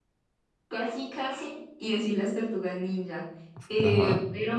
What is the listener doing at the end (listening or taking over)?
listening